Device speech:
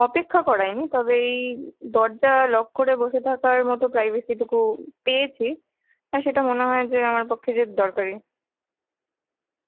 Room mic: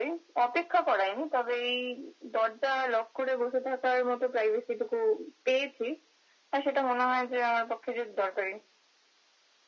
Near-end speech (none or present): none